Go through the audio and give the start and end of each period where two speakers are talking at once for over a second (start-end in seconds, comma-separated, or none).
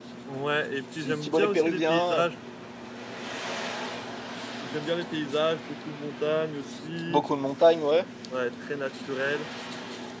1.0-2.2